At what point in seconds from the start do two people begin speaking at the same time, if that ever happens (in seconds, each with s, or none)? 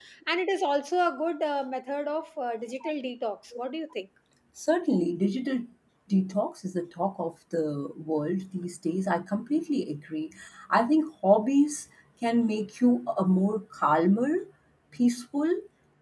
none